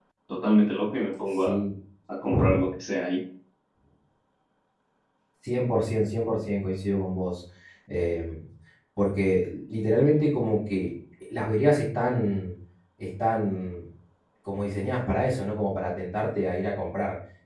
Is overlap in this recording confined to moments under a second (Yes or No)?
Yes